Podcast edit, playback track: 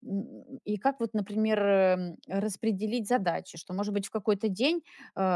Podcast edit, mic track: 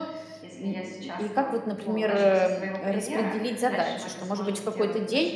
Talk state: both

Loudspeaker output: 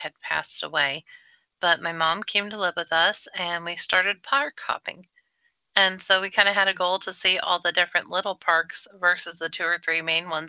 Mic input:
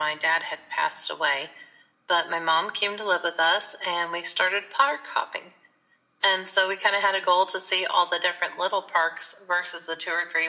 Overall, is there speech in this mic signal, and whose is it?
echo only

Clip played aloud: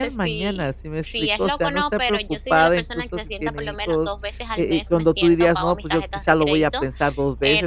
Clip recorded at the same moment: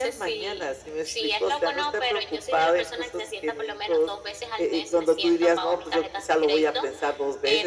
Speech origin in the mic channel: echo only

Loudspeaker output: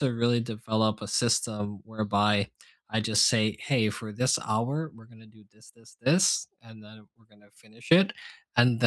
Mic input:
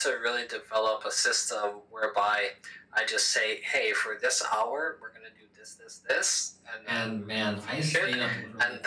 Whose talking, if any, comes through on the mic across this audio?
both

